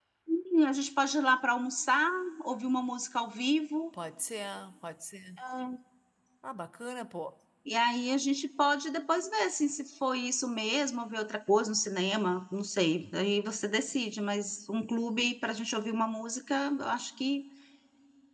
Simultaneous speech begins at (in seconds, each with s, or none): none